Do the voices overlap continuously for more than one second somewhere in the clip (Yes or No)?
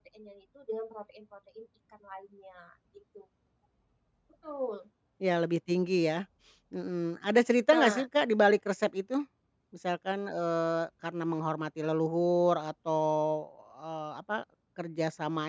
No